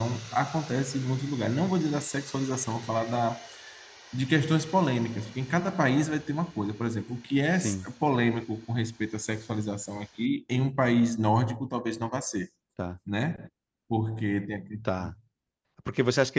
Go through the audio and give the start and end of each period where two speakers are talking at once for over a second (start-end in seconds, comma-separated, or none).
none